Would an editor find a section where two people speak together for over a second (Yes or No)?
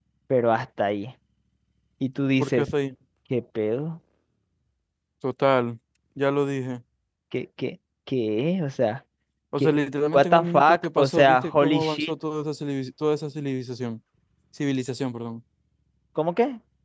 Yes